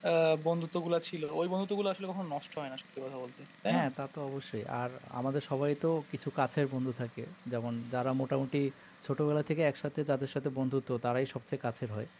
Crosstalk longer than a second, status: none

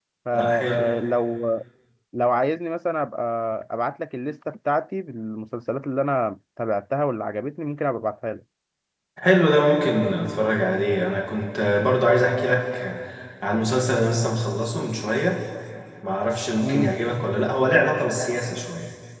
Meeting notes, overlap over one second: none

